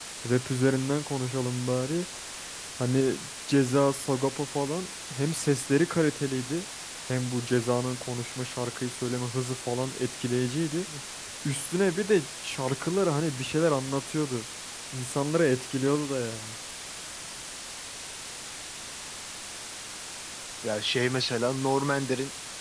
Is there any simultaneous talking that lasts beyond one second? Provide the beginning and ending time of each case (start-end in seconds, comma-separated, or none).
none